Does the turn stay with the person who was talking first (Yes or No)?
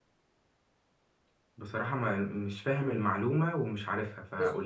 No